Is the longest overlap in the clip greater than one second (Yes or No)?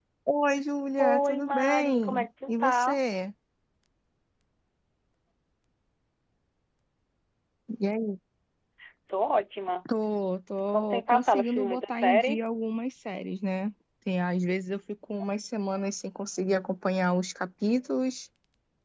Yes